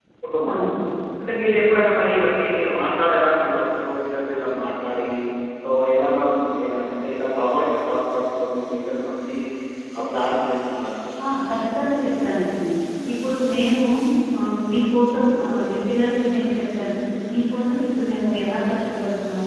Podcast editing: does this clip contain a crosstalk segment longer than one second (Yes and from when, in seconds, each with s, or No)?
No